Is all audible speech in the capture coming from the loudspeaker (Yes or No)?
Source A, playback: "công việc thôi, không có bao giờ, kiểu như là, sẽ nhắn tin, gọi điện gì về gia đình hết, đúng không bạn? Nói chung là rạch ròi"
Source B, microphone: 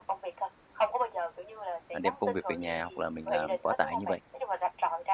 No